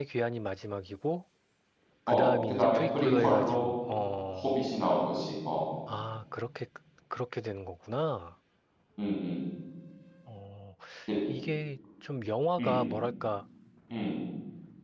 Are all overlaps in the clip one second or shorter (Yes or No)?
No